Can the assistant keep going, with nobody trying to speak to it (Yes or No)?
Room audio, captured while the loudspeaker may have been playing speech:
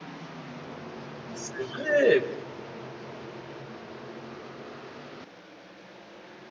No